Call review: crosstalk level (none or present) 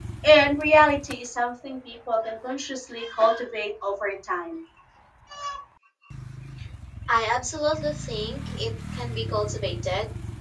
none